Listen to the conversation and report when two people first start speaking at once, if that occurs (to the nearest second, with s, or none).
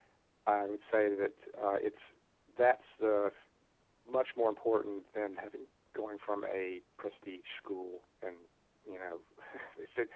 none